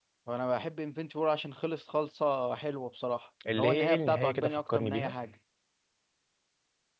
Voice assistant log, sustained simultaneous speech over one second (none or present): present